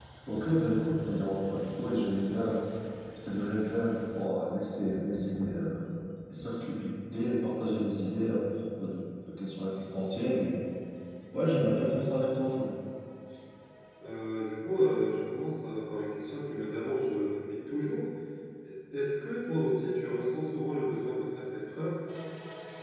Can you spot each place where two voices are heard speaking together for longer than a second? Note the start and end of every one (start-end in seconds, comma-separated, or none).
none